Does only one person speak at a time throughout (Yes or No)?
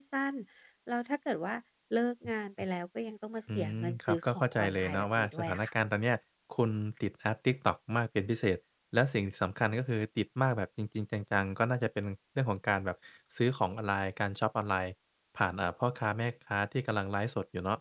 No